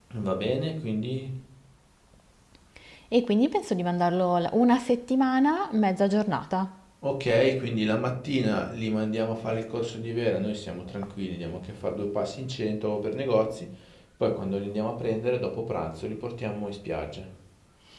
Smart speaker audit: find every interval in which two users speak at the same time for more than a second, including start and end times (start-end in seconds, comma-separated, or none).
none